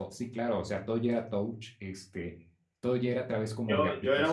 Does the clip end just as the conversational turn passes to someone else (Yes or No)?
Yes